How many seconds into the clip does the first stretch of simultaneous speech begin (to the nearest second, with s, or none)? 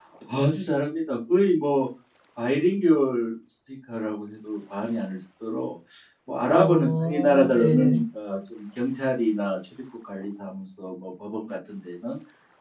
6 s